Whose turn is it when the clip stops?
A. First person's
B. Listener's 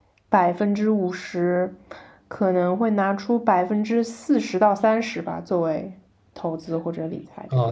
B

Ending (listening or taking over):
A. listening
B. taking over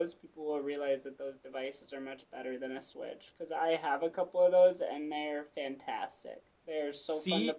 A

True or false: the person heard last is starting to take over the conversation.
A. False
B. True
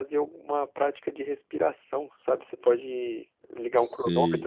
B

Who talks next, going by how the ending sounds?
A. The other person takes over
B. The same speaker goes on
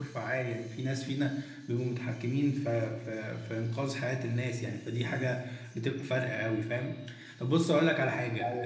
B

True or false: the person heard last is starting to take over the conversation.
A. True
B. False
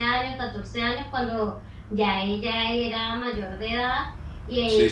B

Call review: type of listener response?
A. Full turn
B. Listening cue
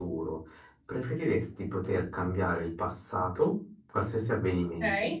B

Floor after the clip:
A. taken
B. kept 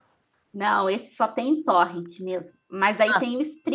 B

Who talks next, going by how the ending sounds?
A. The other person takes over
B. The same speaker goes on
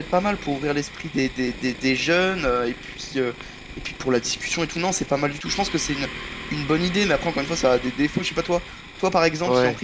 B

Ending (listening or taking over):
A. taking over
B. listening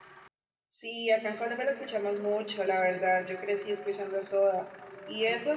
B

